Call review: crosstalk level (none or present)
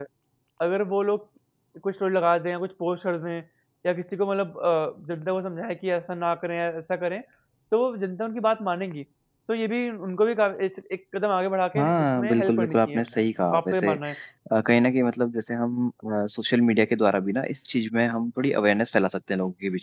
present